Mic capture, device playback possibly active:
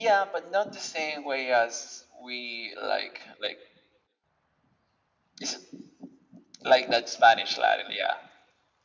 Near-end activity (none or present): none